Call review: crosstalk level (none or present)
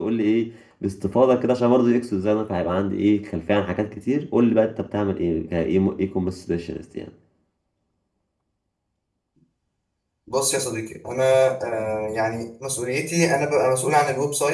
none